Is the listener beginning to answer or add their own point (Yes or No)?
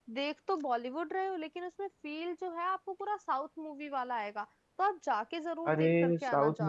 Yes